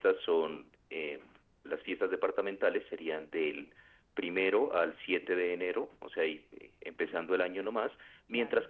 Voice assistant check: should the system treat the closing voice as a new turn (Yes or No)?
No